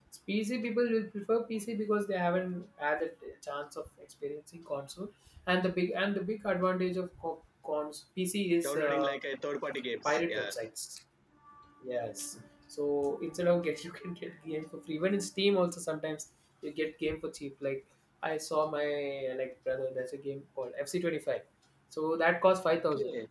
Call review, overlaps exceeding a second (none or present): none